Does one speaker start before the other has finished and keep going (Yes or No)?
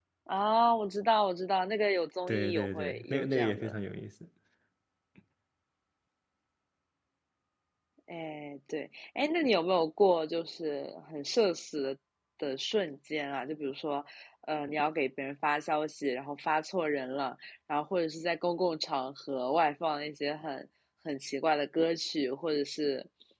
Yes